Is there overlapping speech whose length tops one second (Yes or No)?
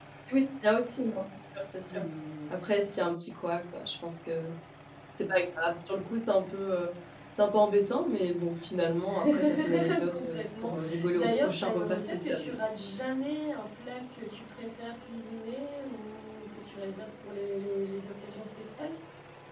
Yes